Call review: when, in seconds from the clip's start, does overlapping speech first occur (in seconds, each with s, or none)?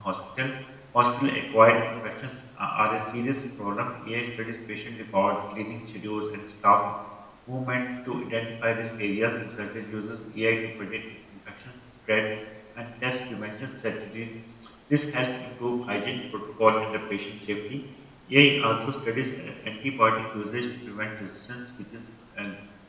none